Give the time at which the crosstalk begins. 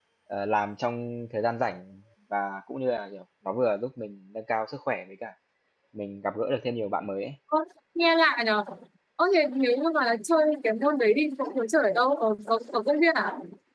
none

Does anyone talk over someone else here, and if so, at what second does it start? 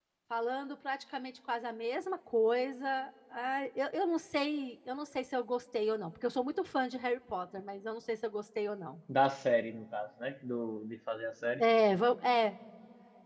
none

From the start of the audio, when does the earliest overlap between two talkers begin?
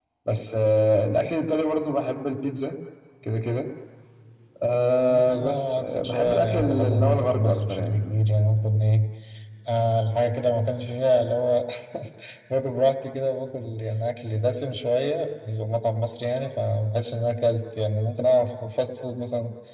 5 s

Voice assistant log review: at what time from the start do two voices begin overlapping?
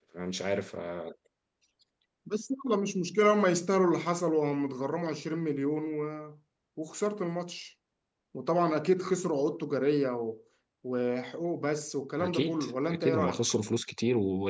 12 s

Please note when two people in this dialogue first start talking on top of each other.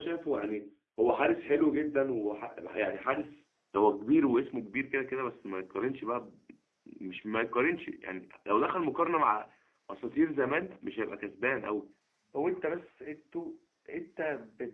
none

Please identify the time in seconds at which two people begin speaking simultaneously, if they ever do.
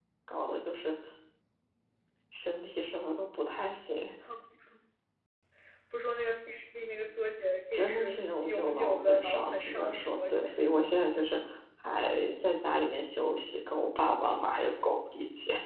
8 s

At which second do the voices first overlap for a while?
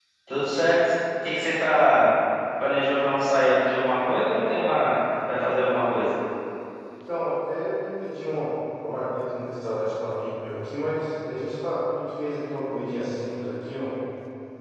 none

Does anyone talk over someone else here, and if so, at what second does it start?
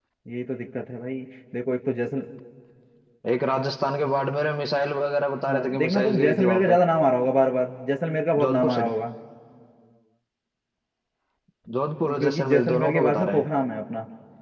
5 s

